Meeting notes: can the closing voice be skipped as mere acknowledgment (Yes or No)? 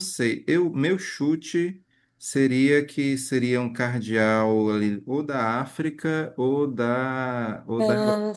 Yes